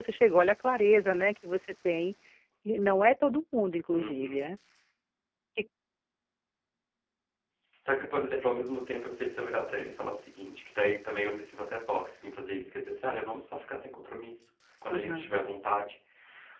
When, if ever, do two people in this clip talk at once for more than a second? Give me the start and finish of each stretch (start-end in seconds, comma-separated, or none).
none